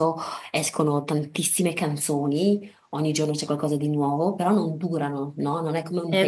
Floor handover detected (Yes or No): No